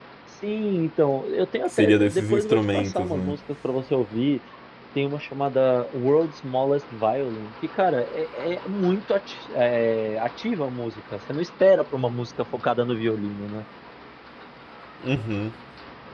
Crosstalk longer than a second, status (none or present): present